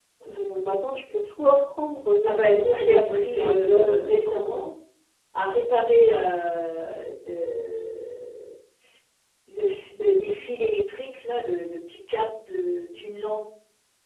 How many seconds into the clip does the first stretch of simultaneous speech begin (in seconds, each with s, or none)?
2.3 s